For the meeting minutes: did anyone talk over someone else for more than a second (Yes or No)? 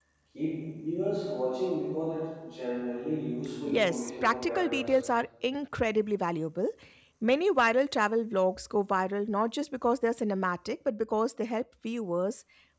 Yes